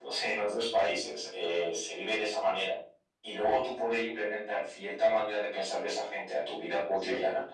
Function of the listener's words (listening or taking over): listening